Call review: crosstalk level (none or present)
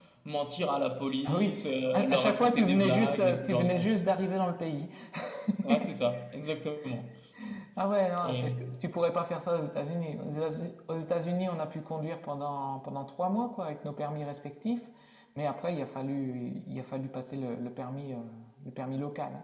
present